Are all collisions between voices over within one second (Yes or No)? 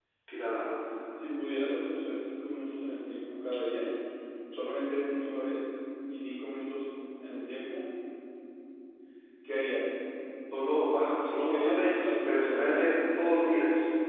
No